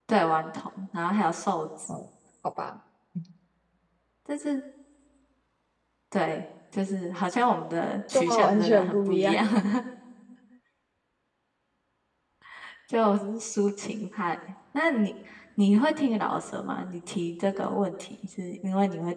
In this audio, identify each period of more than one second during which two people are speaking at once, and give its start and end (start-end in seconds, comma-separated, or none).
8.1-9.4